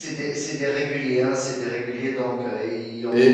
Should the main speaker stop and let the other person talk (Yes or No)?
Yes